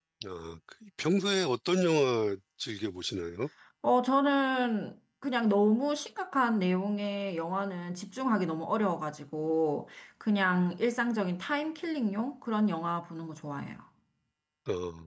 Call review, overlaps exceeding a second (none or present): none